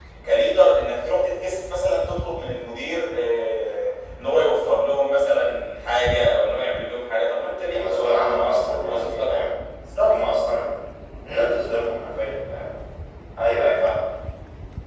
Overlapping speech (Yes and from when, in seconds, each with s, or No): Yes, from 7.7 s